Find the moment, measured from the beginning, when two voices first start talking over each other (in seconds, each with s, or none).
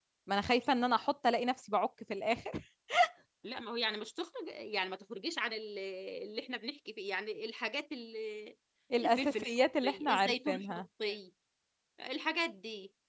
9.0 s